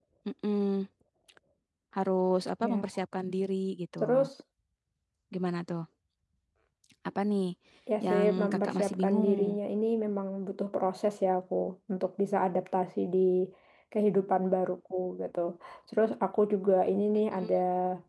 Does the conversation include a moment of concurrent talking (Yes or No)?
Yes